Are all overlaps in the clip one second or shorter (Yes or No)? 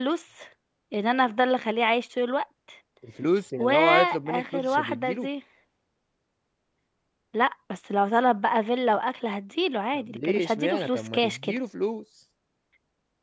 No